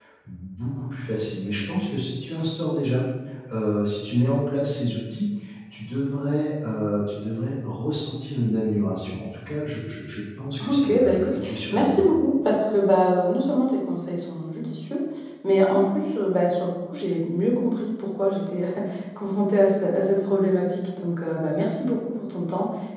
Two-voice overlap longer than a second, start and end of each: 10.7-12.1

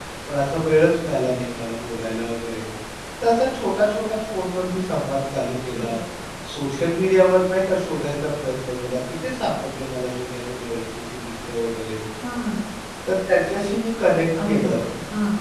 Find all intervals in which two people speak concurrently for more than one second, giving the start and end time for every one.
none

